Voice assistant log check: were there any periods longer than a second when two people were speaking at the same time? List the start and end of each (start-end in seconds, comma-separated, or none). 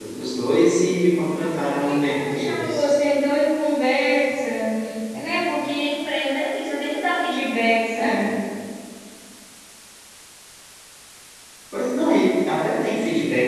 1.6-2.9